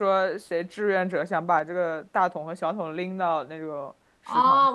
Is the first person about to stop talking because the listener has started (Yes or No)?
Yes